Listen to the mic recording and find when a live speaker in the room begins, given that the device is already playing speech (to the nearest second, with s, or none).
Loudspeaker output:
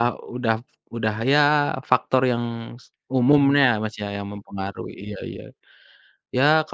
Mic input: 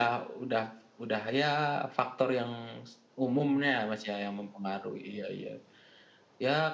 none